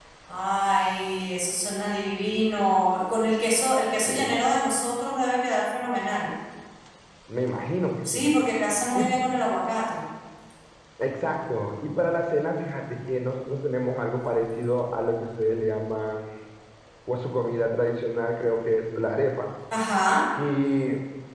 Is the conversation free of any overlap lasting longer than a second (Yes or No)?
Yes